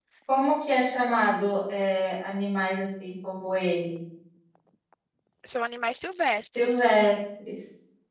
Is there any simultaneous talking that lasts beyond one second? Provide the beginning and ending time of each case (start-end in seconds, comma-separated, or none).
none